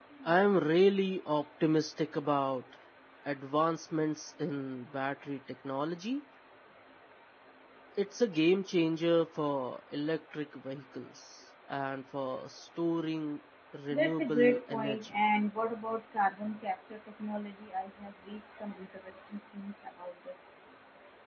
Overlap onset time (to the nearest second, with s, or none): 14 s